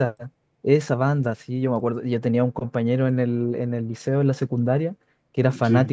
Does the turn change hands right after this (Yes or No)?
No